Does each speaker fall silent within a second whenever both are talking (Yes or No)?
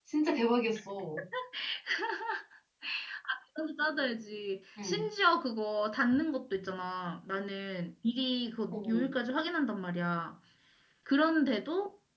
Yes